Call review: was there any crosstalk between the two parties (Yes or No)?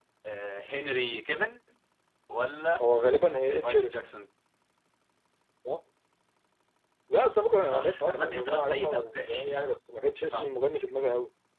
Yes